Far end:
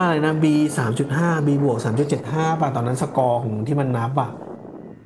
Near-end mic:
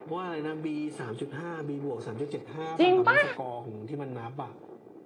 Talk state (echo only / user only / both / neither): both